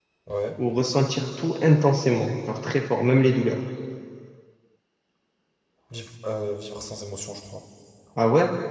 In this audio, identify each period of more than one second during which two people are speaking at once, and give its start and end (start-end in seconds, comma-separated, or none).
none